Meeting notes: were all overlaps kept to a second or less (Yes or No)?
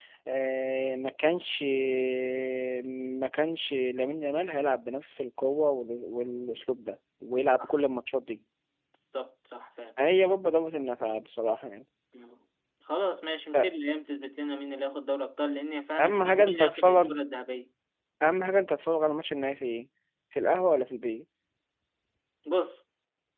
No